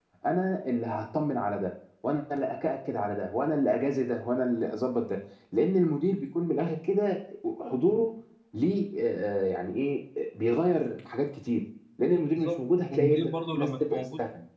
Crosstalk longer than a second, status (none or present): present